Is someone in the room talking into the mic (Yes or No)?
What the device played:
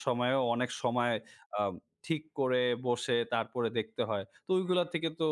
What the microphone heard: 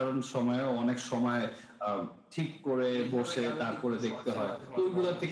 Yes